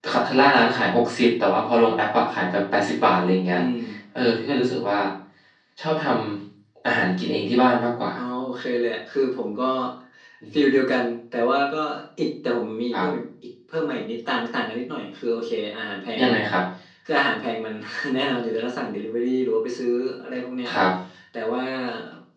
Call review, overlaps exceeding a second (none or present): none